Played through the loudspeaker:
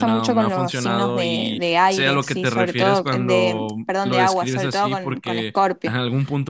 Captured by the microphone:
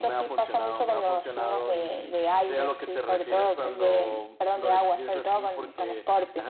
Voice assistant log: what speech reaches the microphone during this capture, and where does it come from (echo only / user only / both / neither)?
echo only